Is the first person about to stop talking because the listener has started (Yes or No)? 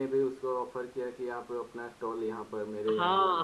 Yes